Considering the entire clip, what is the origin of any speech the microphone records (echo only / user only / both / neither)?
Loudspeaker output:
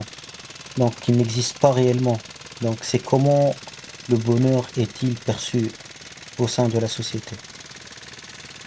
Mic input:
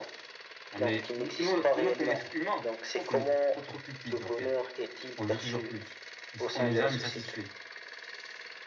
both